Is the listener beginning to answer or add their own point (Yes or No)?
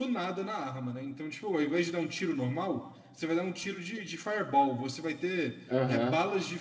No